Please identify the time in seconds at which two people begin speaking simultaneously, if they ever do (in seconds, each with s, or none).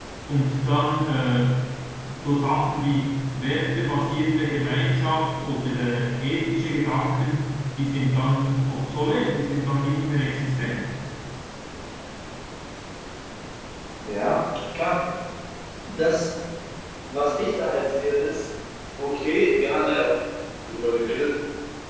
none